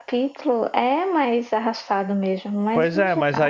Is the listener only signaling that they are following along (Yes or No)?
No